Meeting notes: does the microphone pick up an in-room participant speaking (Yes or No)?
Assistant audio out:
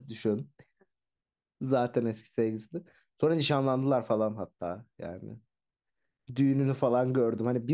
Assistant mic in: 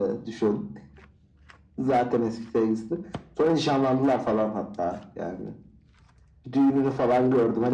No